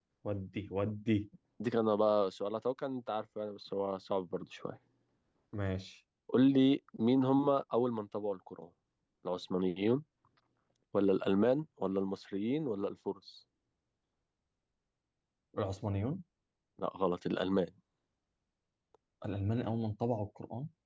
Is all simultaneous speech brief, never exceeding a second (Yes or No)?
Yes